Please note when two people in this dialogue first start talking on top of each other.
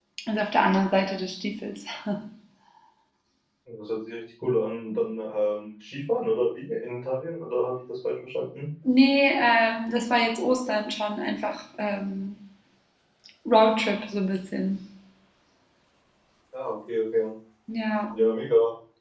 none

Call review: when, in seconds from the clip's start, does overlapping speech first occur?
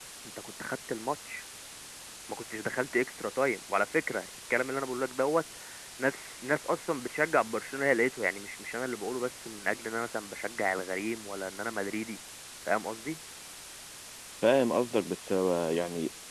none

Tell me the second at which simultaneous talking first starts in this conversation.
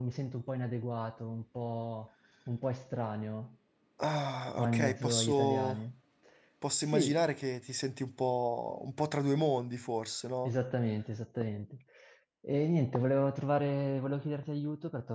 4.6 s

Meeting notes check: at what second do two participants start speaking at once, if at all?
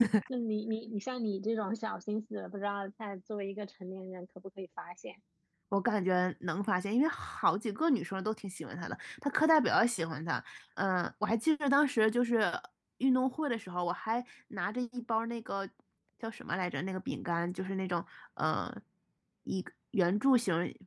none

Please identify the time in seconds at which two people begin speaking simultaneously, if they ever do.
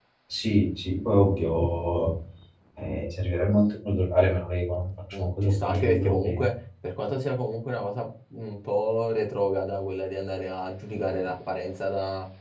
5.1 s

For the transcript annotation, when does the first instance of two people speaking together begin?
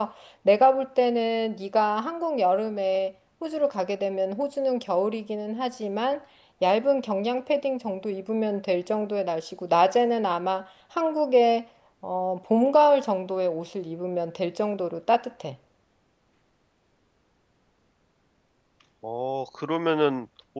none

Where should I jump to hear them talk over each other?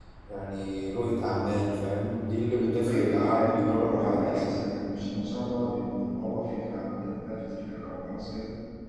2.8 s

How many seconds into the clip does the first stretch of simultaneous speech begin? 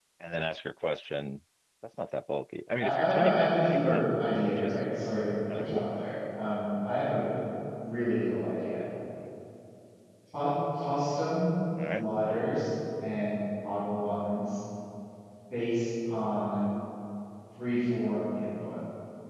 2.8 s

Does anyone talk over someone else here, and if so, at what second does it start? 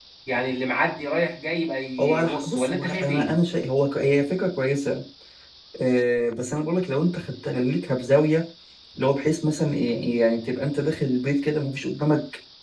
2.0 s

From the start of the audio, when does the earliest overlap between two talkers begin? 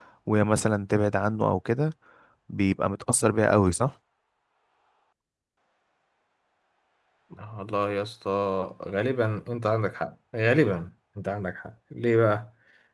none

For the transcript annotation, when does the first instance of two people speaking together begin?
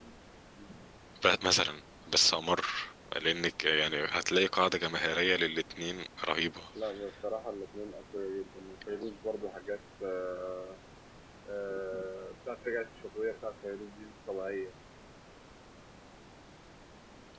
none

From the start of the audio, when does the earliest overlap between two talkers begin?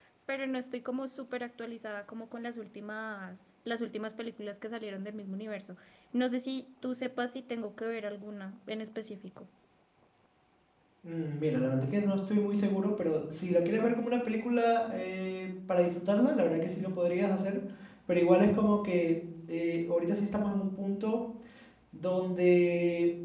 none

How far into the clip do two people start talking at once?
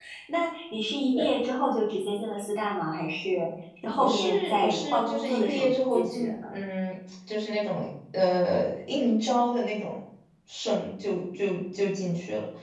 4.0 s

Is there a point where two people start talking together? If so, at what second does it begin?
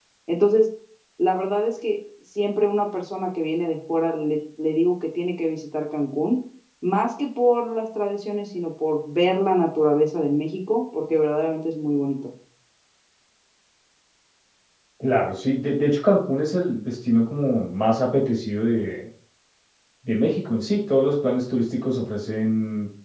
none

